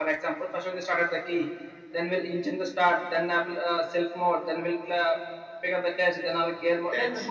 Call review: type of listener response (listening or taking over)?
listening